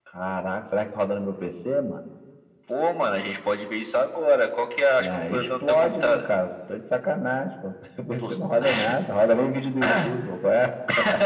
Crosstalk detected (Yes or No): Yes